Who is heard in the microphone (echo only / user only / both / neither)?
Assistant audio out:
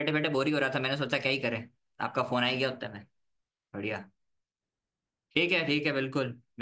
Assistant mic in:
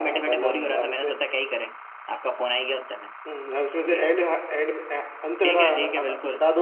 both